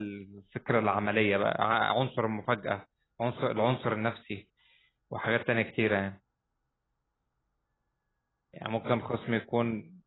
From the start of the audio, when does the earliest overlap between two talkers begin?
none

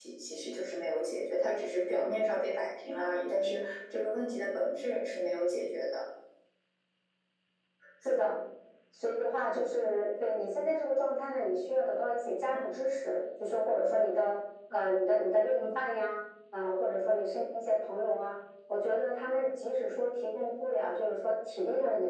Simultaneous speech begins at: none

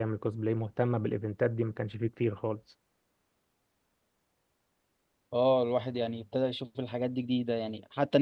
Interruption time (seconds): none

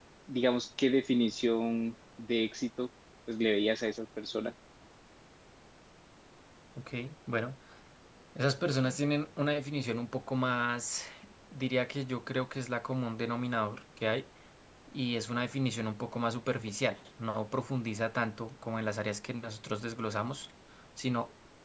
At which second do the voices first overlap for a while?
none

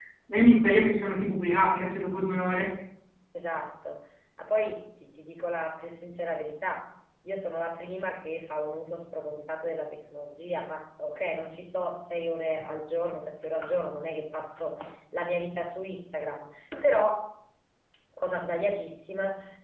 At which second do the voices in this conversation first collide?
none

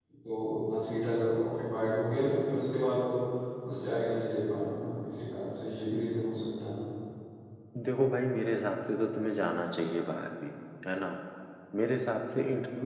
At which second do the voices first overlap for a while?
none

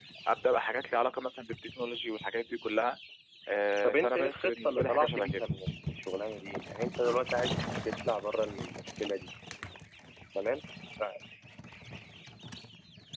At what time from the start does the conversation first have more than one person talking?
3.8 s

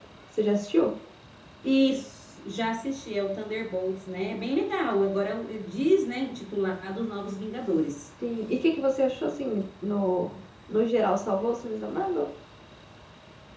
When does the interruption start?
none

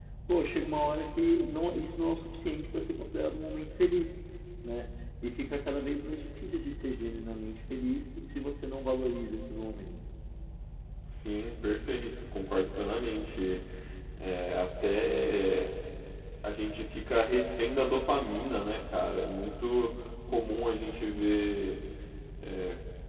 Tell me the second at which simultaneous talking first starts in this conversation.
none

